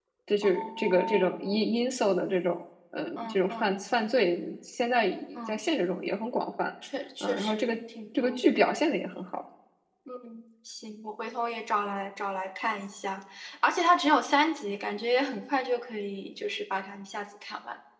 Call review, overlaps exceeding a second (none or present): present